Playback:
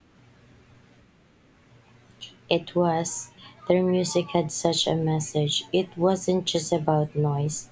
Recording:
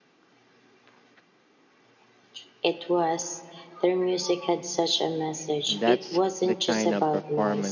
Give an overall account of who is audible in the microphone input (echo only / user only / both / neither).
both